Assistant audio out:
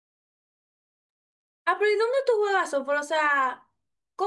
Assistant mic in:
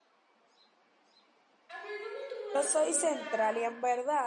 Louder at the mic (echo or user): user